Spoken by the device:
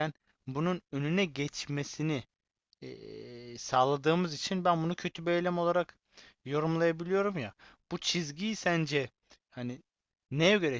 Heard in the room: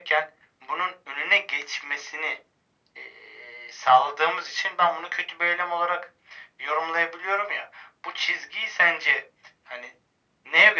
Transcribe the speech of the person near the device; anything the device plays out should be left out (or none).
none